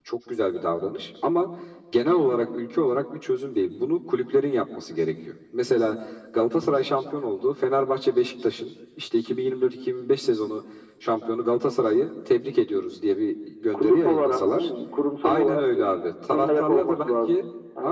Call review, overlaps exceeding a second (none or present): present